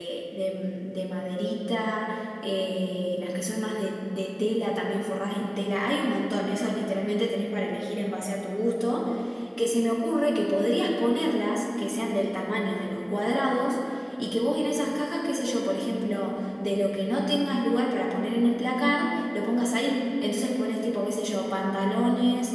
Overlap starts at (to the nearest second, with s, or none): none